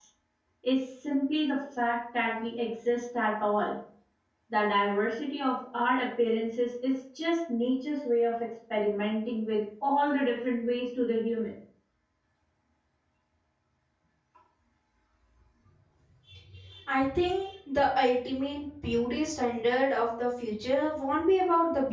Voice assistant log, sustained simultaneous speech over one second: none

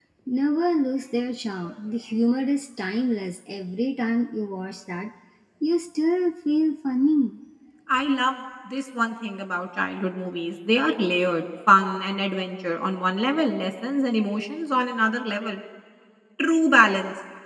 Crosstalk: none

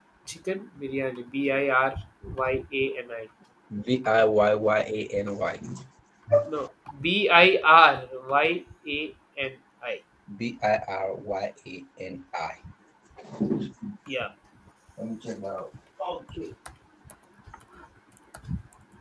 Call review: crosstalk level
none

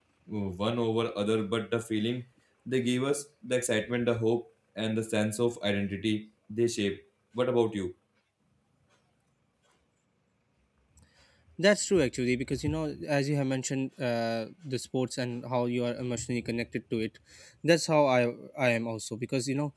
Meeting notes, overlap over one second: none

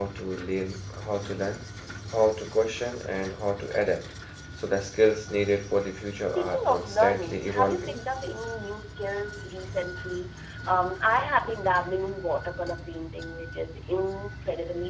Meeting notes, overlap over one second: present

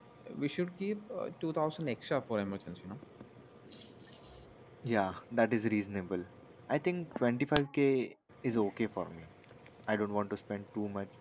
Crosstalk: none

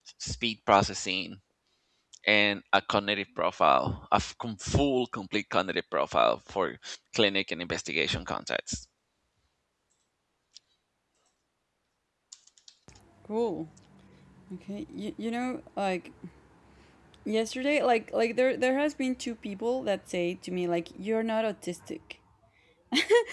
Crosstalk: none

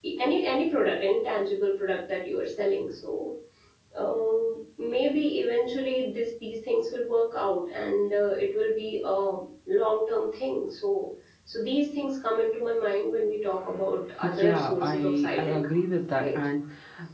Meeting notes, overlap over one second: present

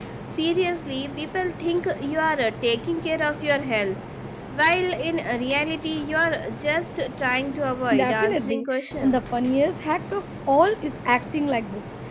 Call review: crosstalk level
present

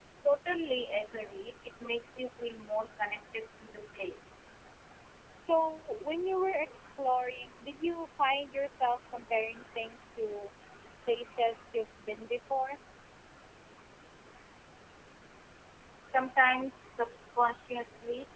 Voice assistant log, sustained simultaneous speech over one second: none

